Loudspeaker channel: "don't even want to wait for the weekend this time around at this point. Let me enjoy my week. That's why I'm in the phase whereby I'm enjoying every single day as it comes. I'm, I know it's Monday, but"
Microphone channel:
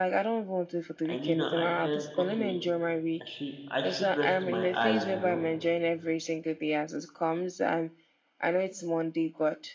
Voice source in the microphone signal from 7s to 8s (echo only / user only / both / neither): echo only